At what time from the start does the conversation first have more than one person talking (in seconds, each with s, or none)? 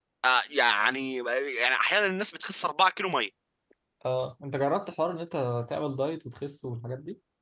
none